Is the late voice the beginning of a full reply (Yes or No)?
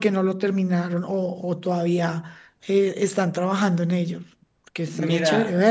Yes